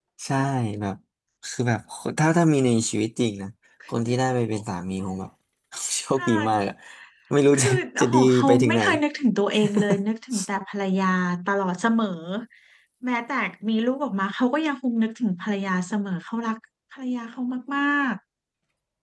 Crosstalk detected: Yes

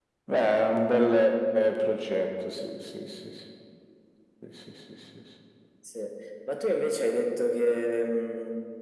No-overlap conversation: Yes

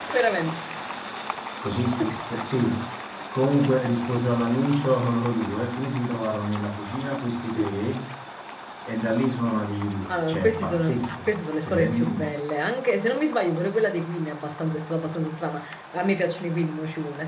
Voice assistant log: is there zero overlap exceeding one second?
No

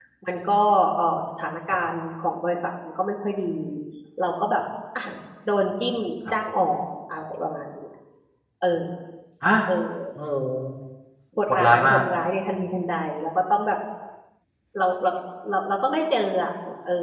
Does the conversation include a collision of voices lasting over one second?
No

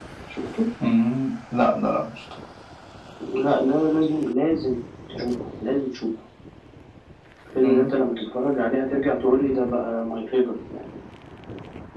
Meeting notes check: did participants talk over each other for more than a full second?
No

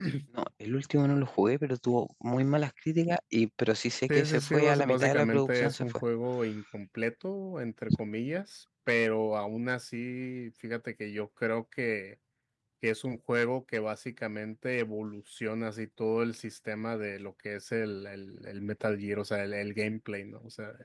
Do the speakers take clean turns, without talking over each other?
No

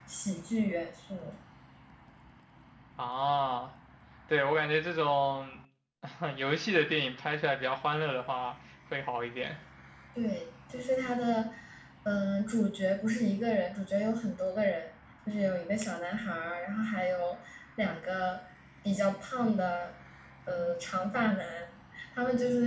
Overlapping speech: No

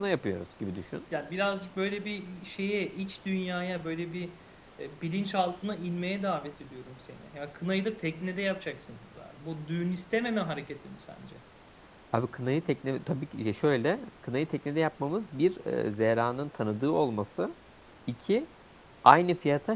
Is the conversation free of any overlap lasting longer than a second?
Yes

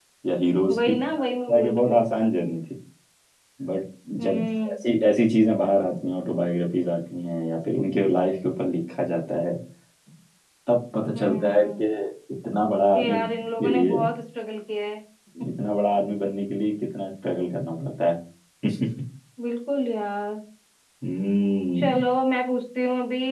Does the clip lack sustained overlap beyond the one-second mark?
No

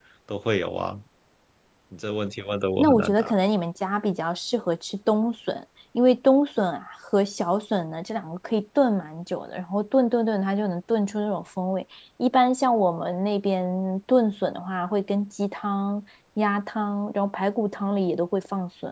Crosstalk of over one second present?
No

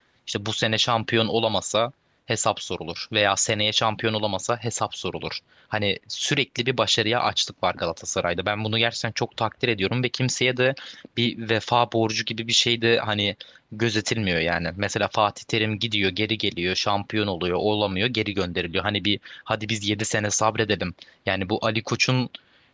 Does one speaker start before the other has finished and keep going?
No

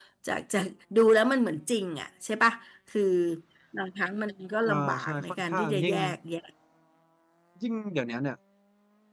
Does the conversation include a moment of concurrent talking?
Yes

